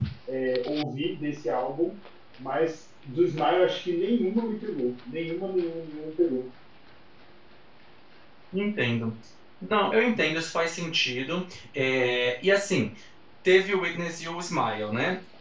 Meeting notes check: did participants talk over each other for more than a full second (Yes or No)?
No